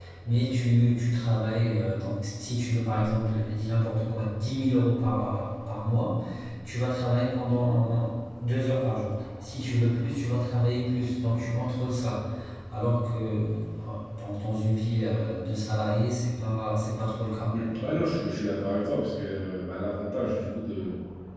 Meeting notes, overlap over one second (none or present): none